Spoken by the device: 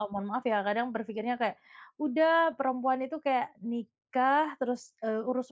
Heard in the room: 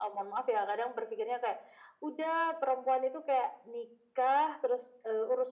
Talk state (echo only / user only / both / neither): echo only